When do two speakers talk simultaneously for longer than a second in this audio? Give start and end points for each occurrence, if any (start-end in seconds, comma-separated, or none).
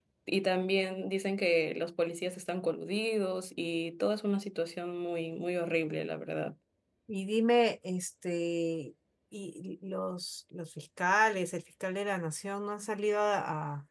none